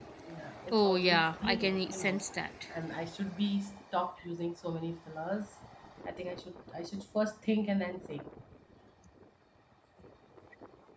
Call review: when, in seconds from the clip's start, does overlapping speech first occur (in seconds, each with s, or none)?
0.7 s